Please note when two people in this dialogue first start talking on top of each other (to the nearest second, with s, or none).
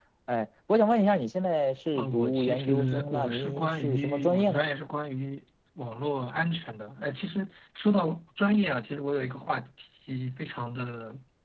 2 s